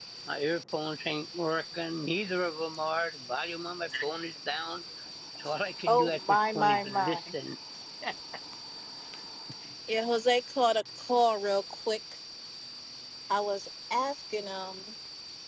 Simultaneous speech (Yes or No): Yes